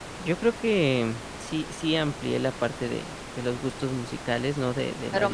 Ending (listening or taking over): taking over